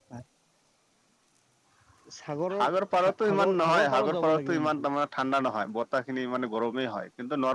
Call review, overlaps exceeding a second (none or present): present